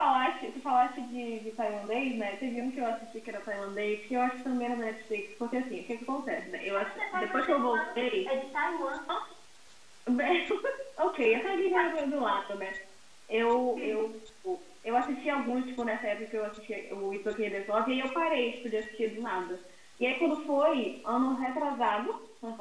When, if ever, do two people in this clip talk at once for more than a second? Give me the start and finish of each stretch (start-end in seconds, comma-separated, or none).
6.8-8.0